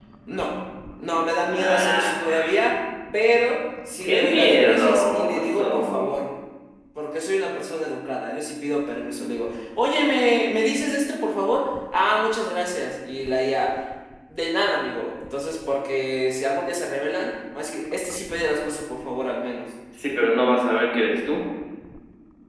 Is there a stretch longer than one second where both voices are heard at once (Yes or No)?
Yes